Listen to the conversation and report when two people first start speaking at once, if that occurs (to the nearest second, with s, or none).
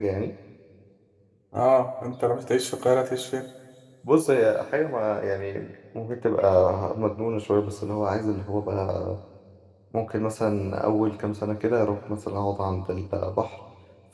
none